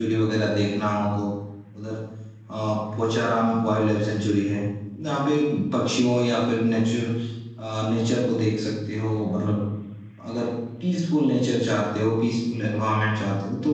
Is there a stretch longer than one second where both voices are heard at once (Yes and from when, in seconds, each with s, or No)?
No